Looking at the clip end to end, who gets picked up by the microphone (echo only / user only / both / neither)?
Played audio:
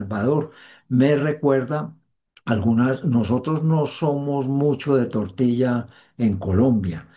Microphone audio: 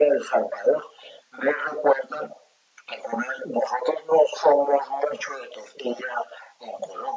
echo only